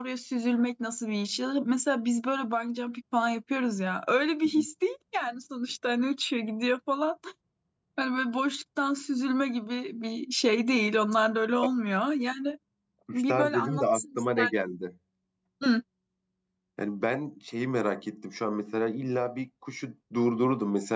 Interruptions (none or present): present